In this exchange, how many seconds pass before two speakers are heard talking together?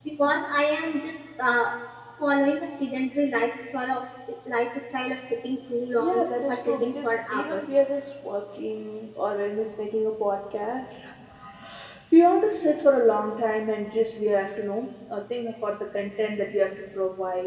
6.0 s

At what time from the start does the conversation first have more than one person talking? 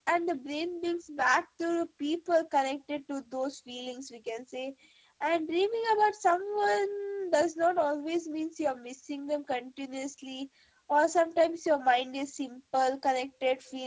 none

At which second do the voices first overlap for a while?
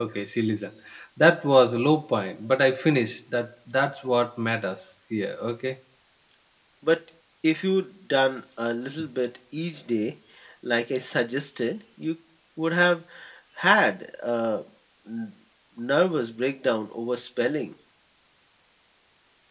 none

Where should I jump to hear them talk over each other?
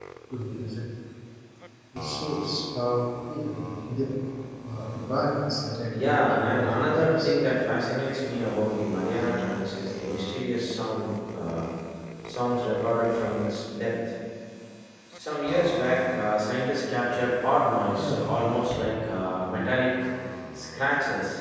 5.9 s

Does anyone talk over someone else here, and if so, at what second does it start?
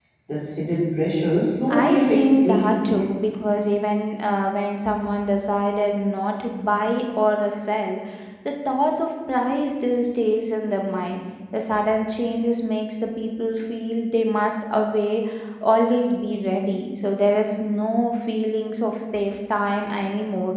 1.7 s

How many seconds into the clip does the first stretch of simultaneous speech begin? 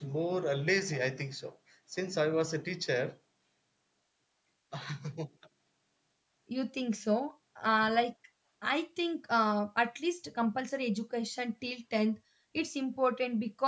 none

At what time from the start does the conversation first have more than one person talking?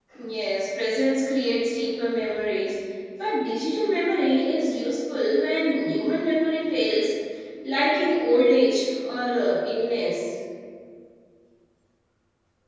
none

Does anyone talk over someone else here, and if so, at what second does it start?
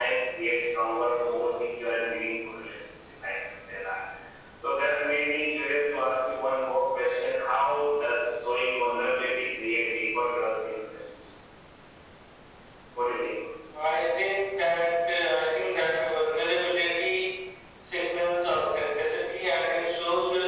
none

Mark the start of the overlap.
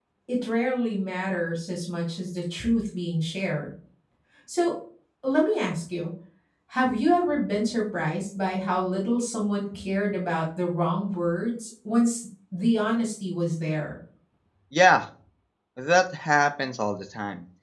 none

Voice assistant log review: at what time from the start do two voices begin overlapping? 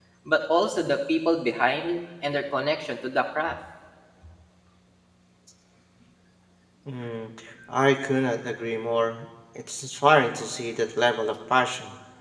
none

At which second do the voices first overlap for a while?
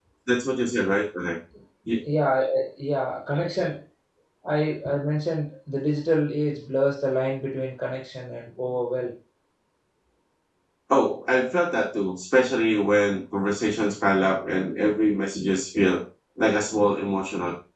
none

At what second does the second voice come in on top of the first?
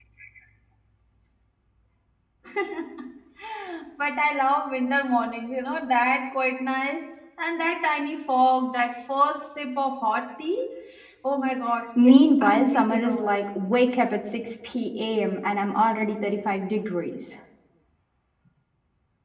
12.0 s

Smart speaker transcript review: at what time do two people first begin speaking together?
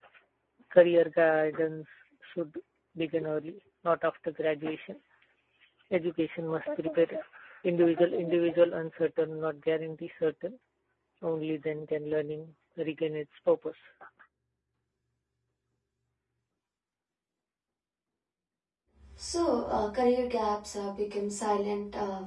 none

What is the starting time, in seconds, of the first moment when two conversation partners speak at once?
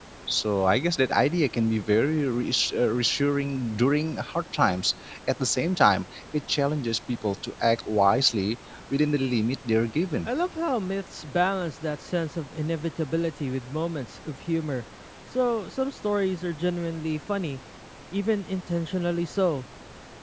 none

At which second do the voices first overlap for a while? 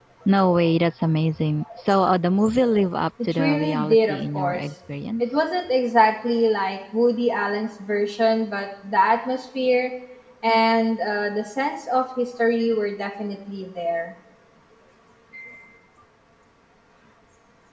3.2 s

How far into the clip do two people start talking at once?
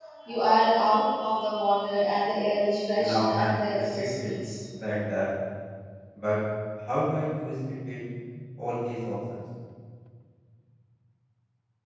3.0 s

